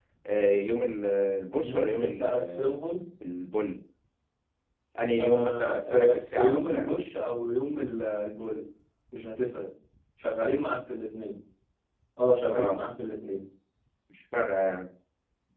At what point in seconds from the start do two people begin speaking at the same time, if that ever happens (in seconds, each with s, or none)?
1.6 s